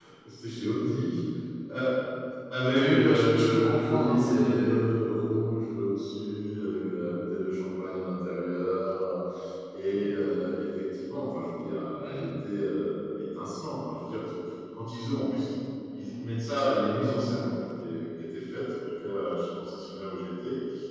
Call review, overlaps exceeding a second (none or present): present